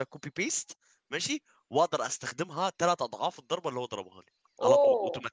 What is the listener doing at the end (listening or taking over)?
taking over